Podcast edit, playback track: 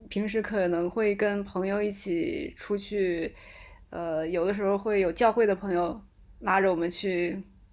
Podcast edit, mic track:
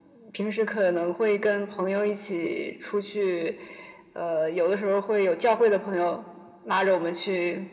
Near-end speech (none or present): none